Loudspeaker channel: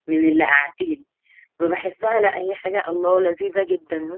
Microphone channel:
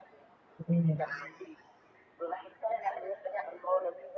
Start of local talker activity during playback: 0.7 s

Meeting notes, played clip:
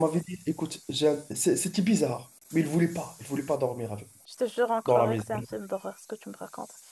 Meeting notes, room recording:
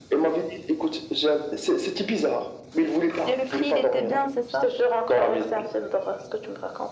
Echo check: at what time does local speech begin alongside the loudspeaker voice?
3.2 s

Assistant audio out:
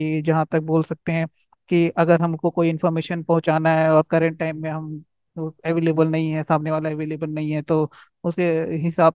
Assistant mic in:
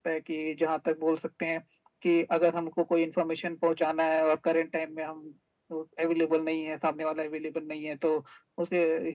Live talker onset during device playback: none

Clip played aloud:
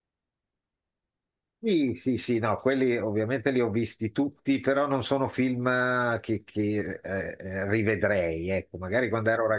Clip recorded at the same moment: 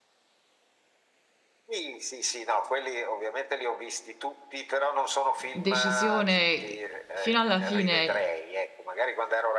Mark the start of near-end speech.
5.5 s

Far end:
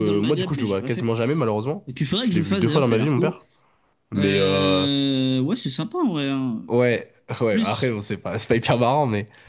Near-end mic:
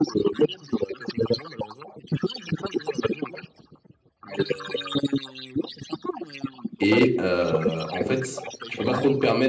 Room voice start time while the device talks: 6.8 s

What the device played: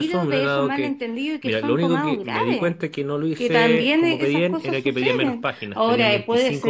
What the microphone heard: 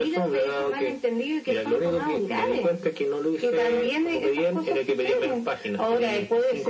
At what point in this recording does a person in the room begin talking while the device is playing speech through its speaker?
none

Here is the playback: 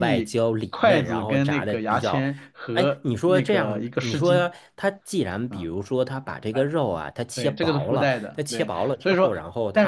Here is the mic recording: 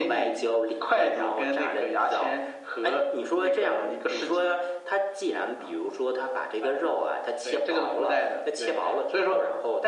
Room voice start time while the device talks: none

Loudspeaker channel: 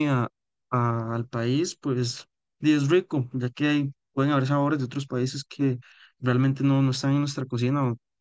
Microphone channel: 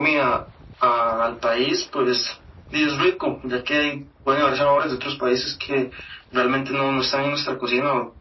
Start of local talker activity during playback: none

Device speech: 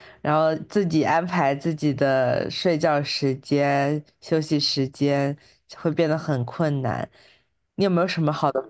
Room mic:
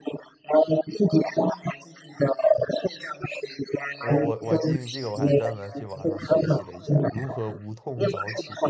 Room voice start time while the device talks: 3.9 s

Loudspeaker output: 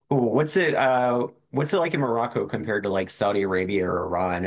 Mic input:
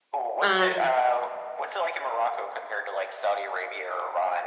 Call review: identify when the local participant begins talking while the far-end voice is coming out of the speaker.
0.4 s

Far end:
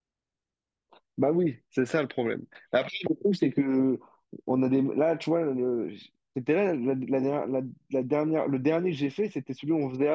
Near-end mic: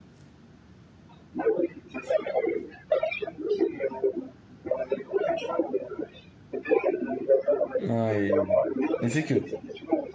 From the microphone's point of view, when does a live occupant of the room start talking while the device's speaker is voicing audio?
7.8 s

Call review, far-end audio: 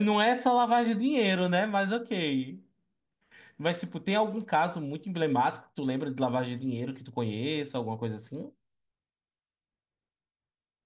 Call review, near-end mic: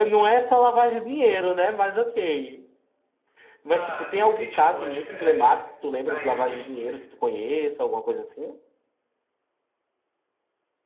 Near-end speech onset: 3.7 s

